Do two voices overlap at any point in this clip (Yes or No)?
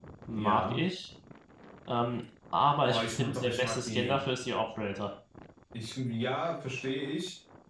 Yes